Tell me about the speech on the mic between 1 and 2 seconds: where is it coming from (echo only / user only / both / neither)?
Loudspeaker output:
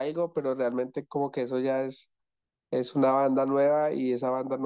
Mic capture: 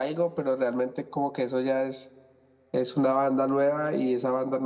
echo only